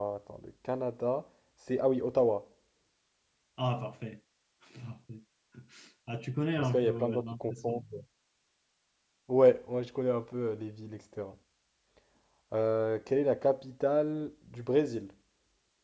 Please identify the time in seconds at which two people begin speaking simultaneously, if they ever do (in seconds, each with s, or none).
6.6 s